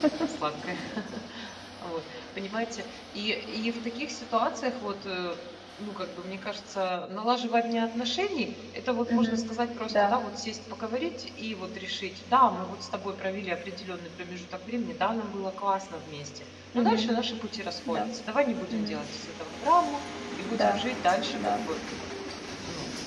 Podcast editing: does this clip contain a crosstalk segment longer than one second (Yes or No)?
No